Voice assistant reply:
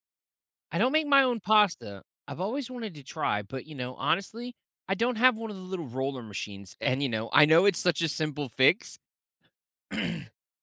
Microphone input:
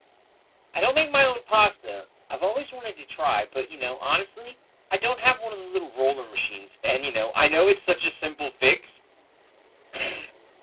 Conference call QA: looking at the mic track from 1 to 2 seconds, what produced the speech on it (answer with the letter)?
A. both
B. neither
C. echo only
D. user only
C